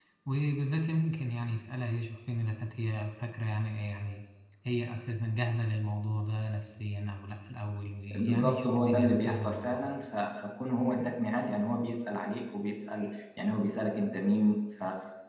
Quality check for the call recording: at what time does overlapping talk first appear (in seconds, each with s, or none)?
8.1 s